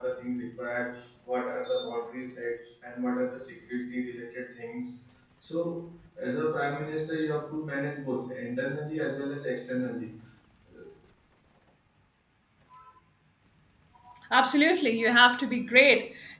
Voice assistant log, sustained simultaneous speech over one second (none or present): none